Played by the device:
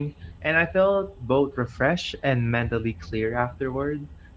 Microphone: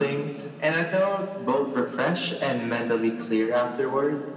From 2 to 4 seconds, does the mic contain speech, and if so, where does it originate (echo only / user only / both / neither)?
echo only